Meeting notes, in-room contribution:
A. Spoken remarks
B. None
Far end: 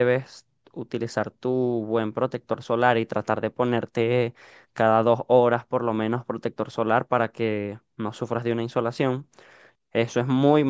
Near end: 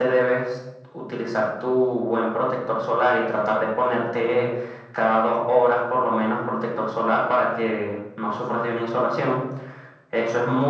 B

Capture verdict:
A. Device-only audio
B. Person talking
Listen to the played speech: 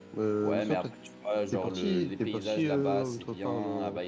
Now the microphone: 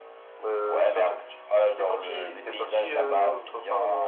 A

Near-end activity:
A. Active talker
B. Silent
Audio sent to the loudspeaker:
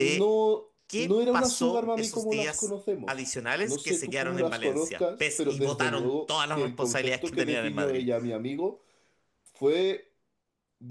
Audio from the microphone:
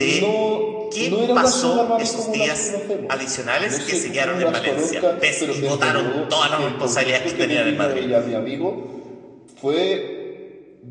B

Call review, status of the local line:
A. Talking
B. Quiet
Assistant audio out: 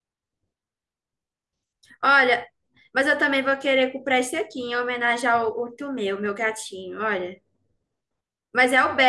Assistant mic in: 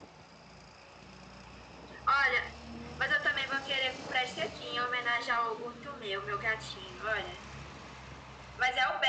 B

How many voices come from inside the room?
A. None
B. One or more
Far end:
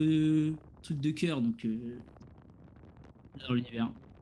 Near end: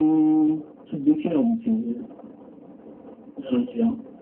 A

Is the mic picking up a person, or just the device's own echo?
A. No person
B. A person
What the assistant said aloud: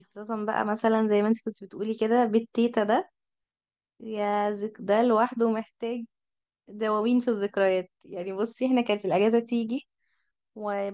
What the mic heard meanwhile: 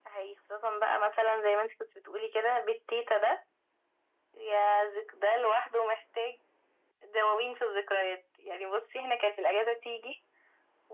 A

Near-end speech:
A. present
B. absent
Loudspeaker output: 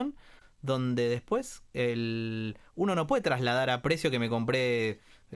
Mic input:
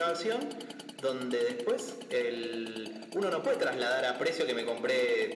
B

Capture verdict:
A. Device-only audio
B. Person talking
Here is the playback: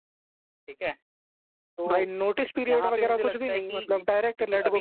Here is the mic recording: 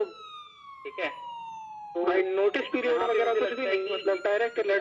A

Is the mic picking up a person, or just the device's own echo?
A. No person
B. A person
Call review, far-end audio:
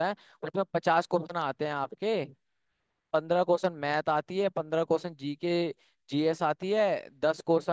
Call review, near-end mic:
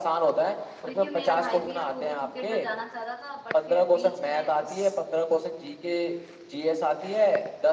B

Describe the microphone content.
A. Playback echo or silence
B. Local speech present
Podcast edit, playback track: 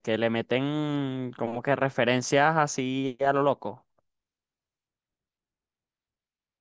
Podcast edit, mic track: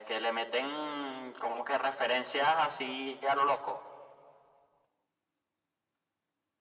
A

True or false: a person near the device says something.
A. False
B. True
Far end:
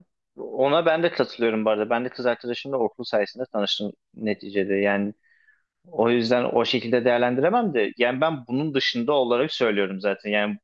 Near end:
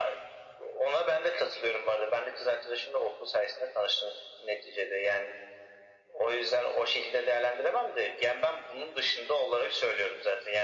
A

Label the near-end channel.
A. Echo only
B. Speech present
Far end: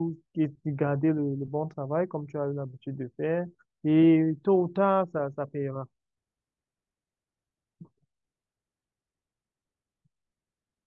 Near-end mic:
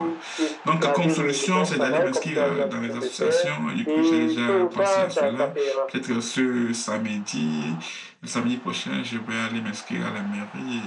B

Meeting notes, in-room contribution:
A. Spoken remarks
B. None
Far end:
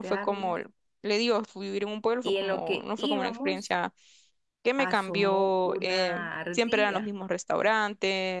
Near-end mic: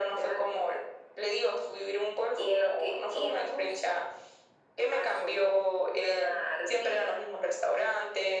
B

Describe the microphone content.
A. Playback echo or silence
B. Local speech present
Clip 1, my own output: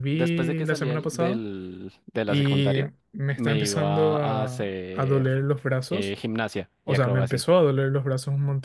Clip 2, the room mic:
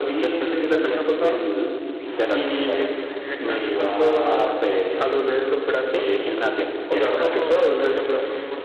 B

